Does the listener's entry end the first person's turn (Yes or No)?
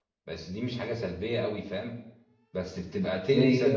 No